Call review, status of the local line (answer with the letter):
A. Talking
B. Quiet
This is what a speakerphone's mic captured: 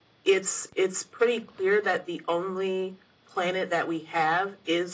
B